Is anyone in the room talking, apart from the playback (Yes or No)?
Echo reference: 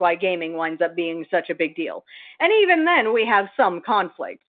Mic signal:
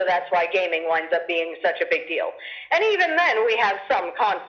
No